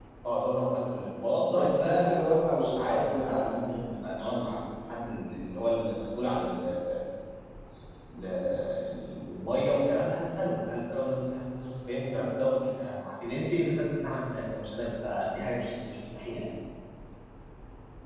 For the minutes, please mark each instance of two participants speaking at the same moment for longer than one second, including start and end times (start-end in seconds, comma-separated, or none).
1.4-3.8